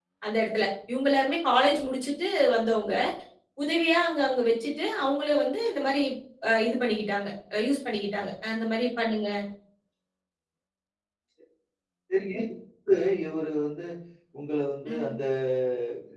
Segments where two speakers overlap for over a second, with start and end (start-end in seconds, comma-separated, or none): none